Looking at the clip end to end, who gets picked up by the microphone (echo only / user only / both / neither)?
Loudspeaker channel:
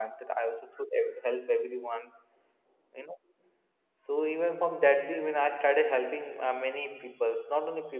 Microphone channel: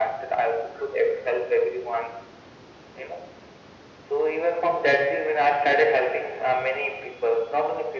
echo only